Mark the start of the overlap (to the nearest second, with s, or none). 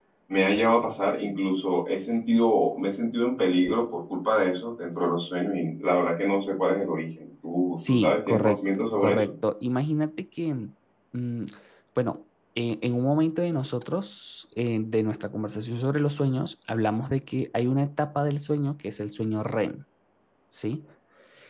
8 s